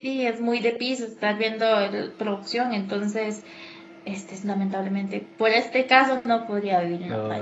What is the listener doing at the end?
taking over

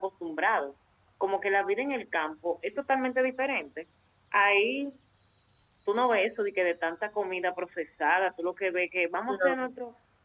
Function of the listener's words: listening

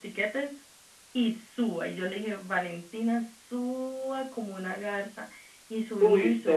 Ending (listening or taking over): taking over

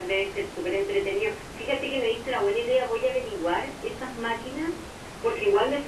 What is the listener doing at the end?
listening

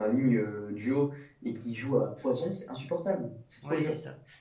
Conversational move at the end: taking over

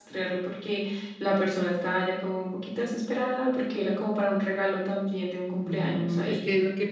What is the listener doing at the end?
taking over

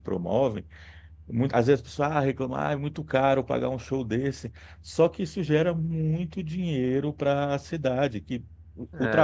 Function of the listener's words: listening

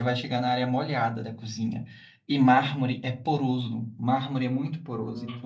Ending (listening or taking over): listening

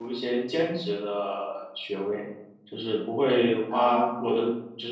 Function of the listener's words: listening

